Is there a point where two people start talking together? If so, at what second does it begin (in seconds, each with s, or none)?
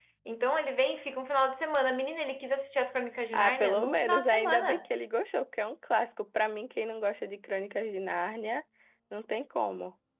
3.3 s